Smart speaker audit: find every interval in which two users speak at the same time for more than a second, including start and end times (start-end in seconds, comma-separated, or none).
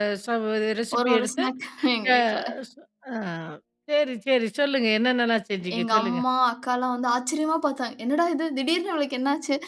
none